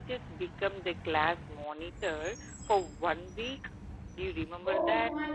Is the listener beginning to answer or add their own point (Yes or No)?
Yes